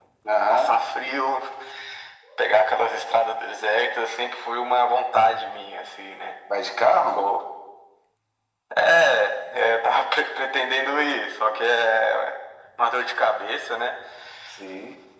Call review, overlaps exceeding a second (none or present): none